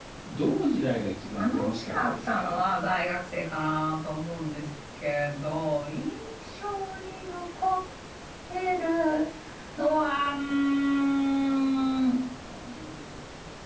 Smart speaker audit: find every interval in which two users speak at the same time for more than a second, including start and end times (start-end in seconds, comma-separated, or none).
1.4-2.6